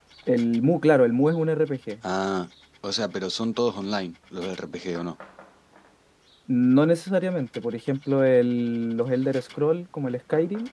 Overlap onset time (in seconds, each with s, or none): none